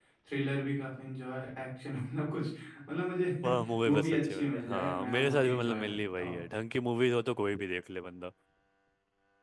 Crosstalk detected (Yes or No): Yes